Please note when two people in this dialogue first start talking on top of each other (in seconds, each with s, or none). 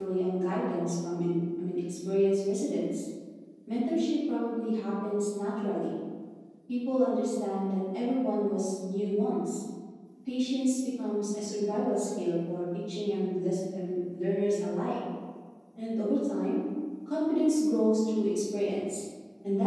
none